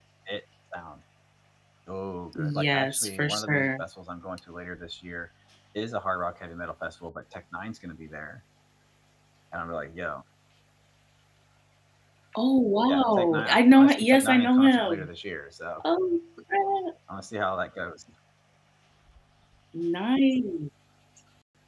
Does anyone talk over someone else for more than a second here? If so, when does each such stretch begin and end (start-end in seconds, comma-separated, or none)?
2.3-3.8, 12.9-15.1